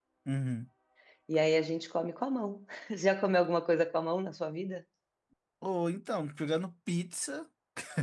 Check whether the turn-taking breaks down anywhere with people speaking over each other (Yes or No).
No